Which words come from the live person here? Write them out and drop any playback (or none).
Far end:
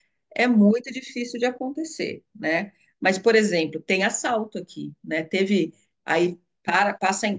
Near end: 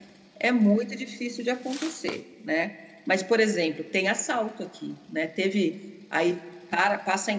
none